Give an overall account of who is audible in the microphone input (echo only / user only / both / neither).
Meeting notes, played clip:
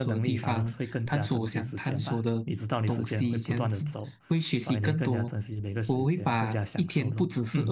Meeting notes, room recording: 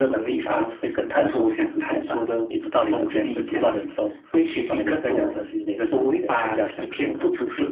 echo only